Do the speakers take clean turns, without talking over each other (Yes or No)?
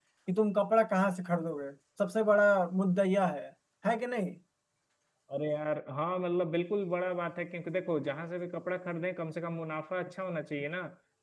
Yes